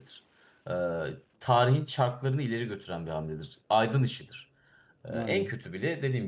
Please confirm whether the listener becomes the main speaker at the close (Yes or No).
No